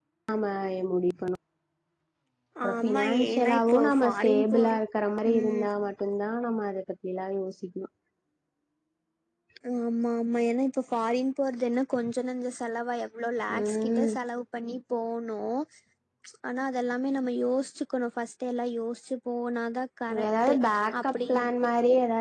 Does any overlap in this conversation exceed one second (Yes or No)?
Yes